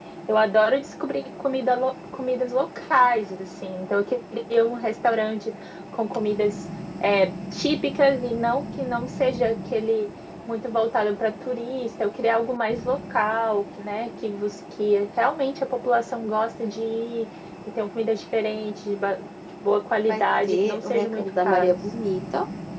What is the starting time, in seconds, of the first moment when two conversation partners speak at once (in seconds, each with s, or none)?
20.1 s